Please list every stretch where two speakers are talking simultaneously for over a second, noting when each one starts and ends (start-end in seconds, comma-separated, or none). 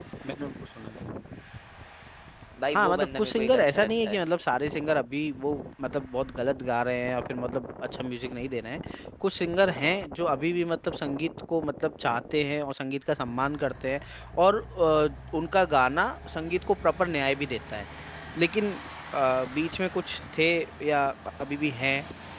2.7-4.2